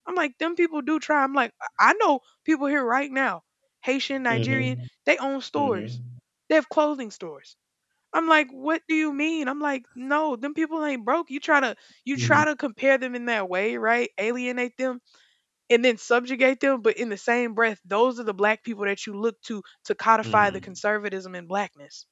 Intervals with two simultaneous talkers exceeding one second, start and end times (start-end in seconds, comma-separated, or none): none